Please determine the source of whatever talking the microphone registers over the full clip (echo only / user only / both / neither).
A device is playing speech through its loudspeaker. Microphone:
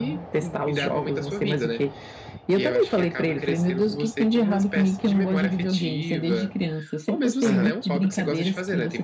both